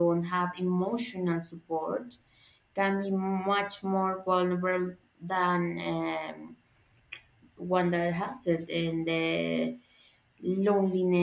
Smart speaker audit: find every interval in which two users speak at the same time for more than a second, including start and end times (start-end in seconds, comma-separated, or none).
none